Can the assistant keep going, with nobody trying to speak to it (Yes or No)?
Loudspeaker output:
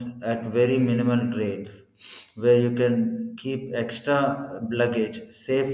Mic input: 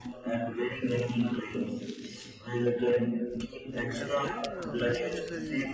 No